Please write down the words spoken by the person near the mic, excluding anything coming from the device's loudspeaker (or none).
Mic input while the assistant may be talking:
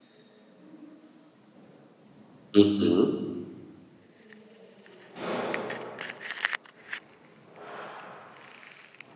uhum.